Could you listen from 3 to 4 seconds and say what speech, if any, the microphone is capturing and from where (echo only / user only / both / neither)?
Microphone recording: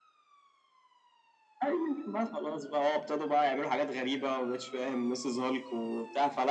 echo only